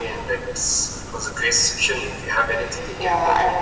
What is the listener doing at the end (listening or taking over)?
taking over